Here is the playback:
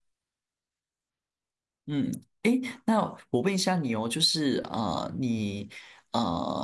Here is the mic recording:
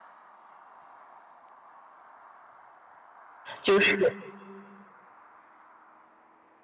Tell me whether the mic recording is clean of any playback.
Yes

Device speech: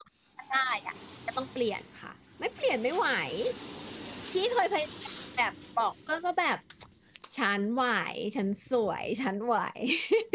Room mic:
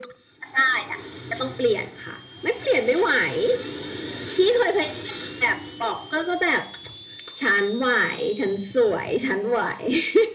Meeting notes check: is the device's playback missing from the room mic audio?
No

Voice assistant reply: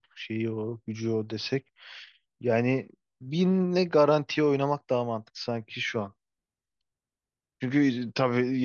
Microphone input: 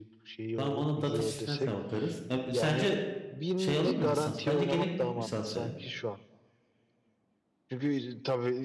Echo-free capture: No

